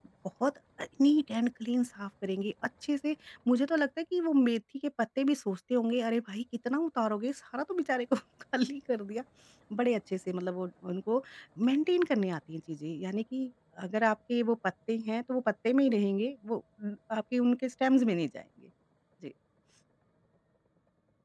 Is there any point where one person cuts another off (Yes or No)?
No